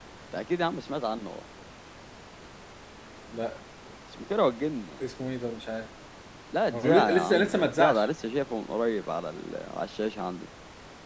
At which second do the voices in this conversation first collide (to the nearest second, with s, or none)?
7 s